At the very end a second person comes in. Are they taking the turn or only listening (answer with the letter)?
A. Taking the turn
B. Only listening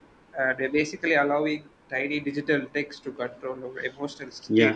A